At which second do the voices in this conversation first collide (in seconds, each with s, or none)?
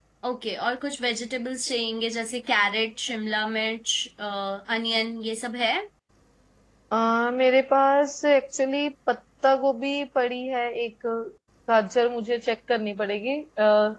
none